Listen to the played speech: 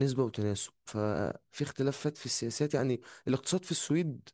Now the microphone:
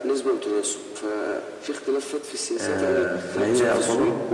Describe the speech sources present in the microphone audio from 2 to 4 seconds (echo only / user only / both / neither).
both